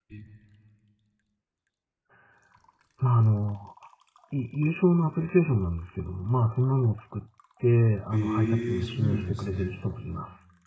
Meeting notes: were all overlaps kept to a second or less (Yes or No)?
No